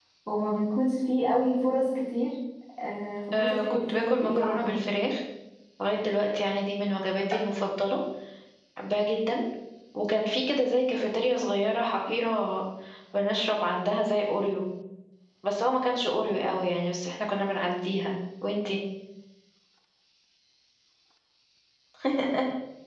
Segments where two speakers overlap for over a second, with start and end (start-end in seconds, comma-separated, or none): 3.3-4.8